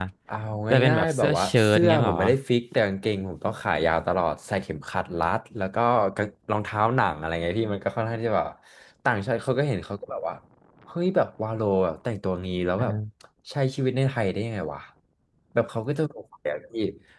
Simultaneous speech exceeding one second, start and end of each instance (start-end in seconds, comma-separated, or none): 0.9-2.2